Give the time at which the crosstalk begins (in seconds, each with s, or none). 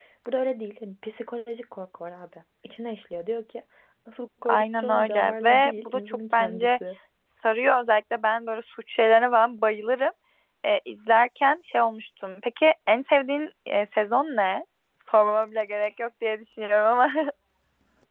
4.4 s